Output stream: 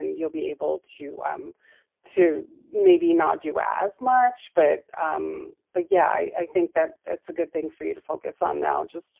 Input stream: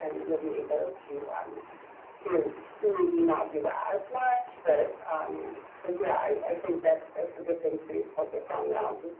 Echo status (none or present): present